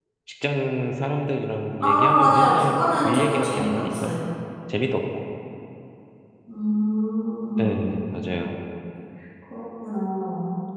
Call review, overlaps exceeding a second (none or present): present